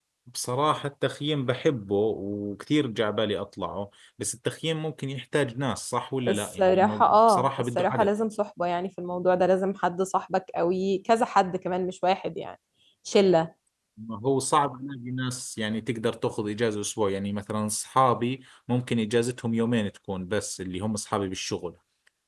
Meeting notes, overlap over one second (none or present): present